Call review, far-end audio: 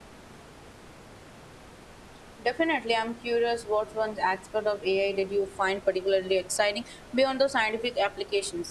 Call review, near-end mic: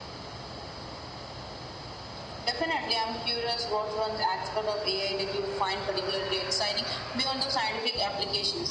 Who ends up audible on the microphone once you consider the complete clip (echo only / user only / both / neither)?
echo only